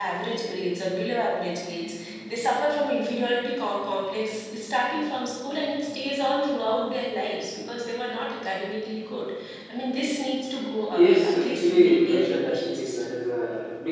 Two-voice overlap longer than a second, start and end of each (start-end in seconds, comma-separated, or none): 11.0-13.2